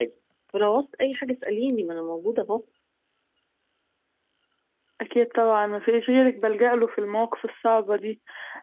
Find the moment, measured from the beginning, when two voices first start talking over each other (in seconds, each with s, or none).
none